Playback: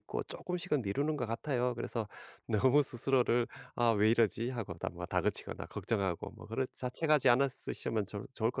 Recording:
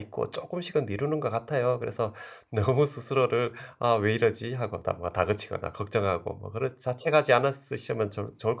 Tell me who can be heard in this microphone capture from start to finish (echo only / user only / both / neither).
echo only